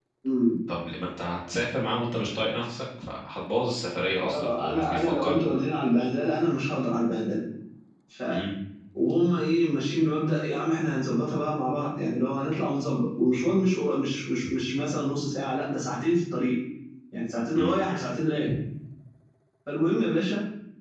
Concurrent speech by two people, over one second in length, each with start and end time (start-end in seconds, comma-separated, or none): 4.2-5.4